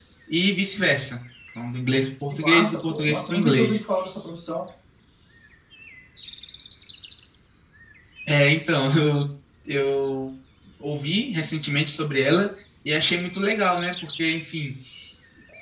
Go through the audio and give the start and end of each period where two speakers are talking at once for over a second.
2.3-3.8

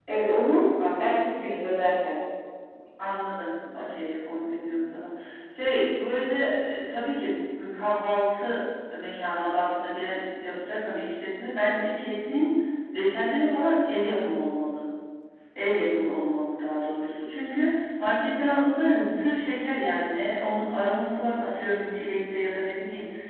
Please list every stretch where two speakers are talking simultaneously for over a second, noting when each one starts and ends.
none

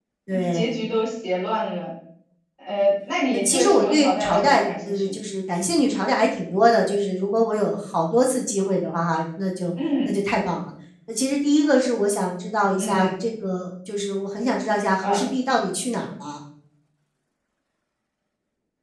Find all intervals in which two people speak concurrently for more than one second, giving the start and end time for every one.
3.3-5.2

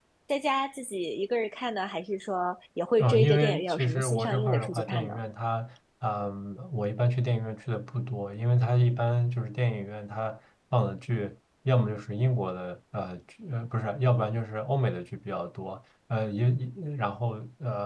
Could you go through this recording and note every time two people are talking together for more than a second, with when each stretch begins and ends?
3.0-5.1

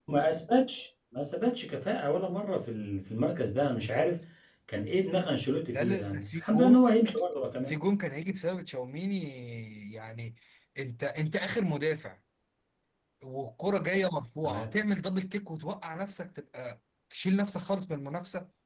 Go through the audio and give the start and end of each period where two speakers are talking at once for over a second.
5.7-6.9

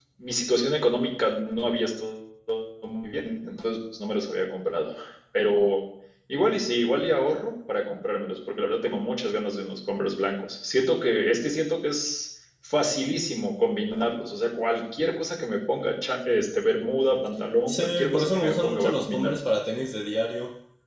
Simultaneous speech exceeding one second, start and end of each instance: 17.7-19.3

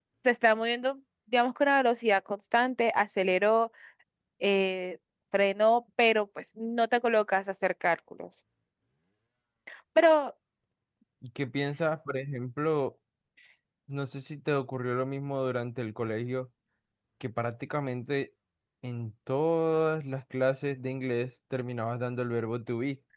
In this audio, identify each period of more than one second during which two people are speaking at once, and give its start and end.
none

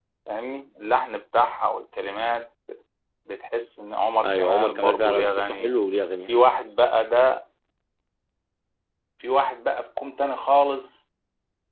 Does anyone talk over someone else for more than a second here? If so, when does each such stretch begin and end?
4.2-5.7

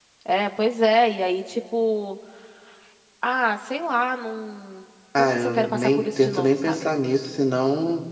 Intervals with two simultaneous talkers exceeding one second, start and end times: 5.2-6.8

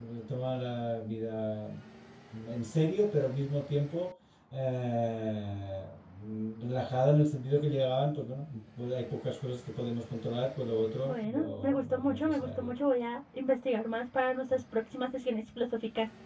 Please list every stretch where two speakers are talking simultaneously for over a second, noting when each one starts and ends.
11.0-12.7

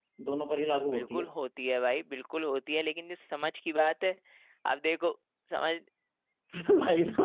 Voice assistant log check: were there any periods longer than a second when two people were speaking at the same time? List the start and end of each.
none

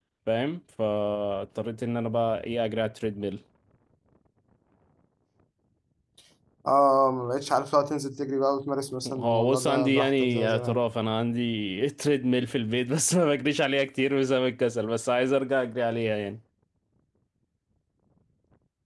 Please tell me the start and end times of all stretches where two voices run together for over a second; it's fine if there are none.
9.1-10.8

